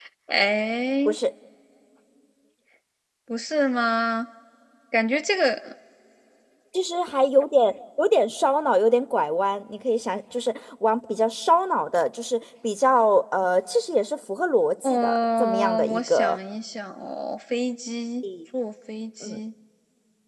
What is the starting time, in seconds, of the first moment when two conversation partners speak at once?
14.8 s

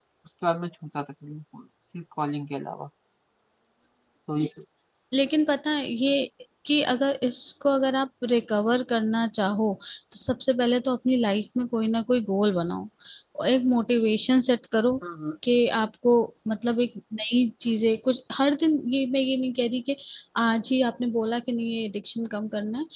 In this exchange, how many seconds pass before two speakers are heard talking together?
none

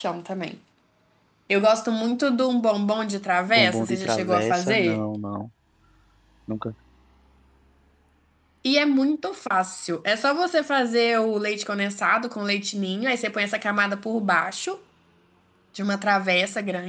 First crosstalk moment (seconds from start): 3.5 s

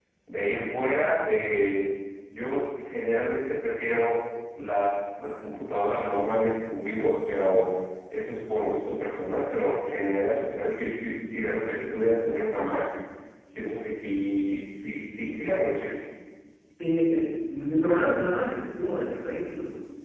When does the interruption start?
none

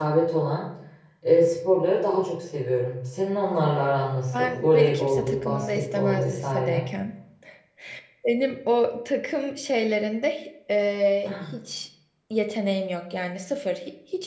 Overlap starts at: 4.4 s

